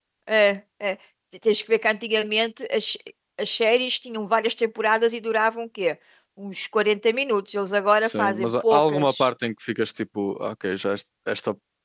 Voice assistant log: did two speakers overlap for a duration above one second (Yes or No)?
Yes